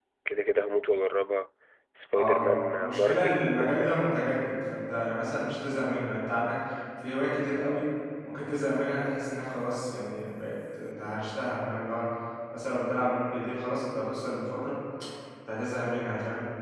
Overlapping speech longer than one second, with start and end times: 2.1-3.9

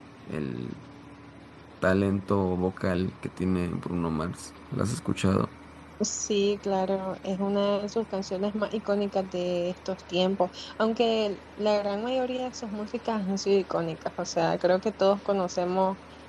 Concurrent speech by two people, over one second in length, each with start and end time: none

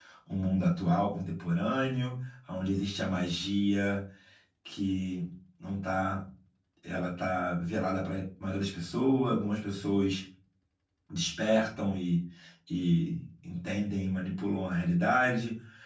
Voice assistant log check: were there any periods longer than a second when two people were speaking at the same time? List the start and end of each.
none

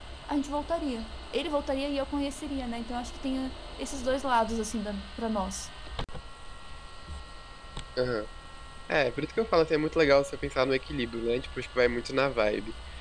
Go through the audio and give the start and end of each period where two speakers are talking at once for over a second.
none

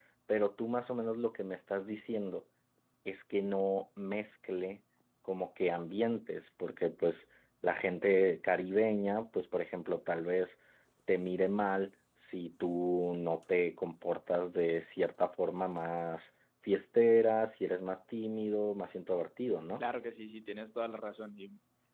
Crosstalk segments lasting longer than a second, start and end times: none

